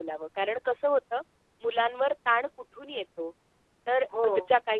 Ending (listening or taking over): listening